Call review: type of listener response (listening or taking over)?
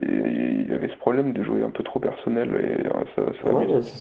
taking over